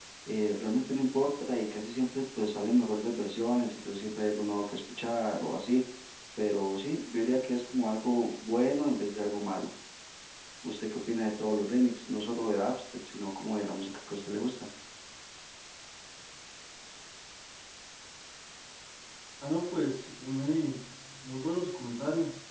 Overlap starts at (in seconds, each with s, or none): none